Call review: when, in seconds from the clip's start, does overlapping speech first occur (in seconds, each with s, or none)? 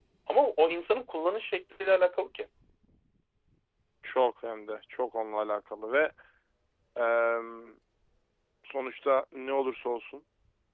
none